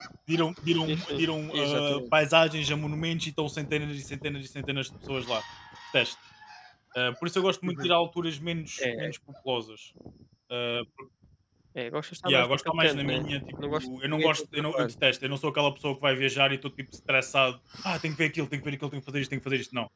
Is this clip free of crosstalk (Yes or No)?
No